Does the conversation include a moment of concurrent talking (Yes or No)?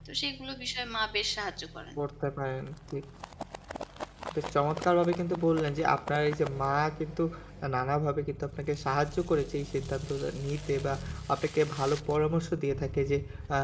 No